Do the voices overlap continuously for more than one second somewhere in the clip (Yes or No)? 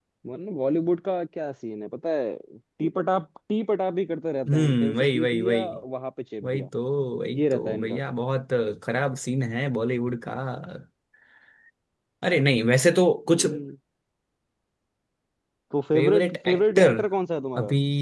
Yes